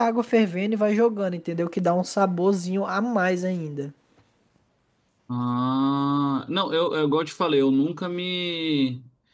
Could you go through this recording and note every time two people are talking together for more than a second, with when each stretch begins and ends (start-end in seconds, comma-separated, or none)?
none